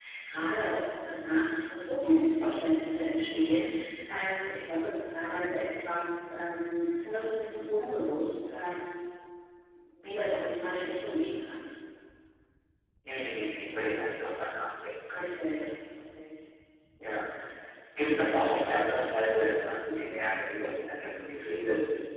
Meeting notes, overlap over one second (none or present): none